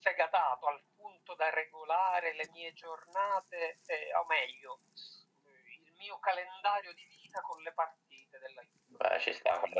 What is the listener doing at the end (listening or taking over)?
taking over